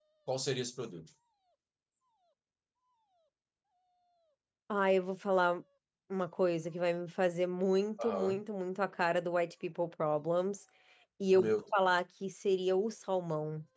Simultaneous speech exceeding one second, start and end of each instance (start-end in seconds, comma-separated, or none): none